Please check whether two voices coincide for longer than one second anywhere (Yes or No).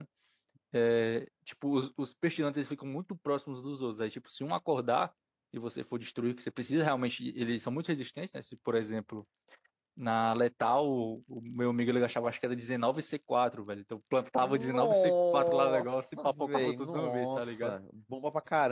Yes